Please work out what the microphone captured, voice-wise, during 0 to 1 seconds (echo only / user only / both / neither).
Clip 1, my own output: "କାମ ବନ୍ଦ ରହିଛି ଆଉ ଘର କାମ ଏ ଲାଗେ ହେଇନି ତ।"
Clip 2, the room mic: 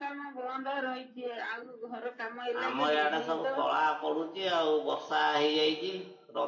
echo only